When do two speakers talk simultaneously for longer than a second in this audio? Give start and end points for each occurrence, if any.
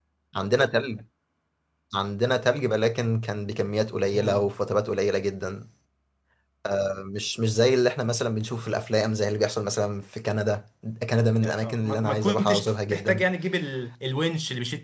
11.4-13.2

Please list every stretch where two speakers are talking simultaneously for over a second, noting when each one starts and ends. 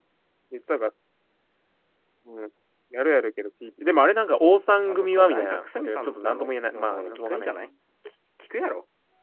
4.9-7.5

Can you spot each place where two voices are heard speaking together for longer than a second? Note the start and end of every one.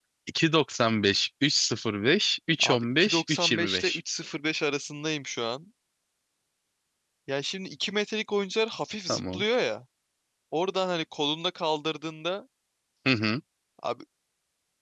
2.6-4.0

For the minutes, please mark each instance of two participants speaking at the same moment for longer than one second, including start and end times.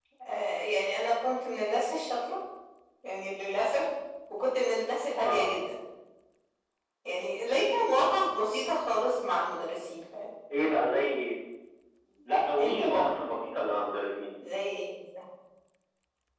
none

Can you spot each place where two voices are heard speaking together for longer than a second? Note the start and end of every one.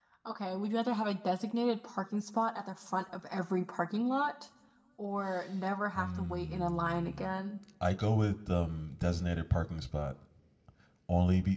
6.0-7.3

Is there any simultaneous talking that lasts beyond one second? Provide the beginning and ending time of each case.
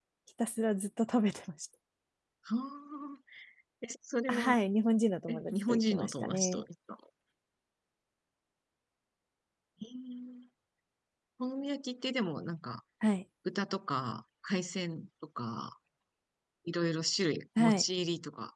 5.3-6.6

